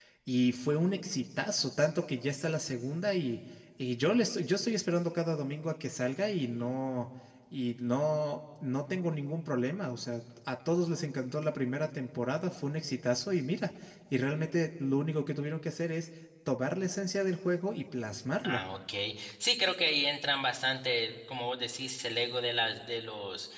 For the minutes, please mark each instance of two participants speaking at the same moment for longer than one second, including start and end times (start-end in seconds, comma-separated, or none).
none